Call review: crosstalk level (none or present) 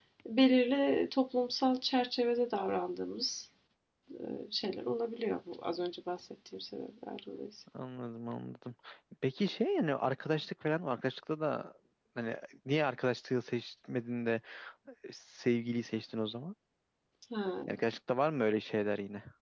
none